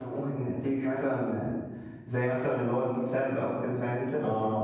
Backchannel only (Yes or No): No